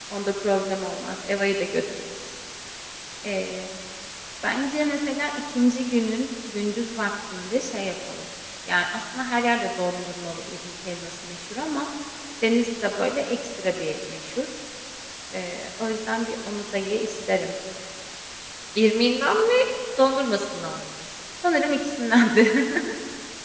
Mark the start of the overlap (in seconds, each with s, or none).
none